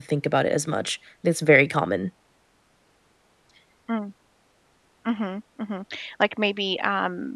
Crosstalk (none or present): none